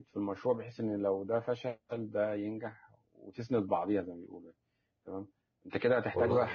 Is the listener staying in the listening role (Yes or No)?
Yes